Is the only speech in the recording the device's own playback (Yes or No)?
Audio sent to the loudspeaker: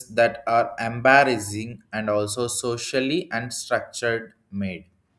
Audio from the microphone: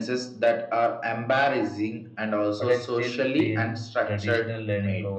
No